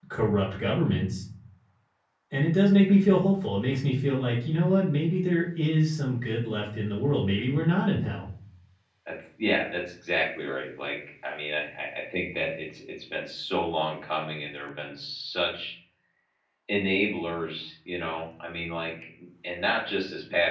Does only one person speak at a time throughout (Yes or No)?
Yes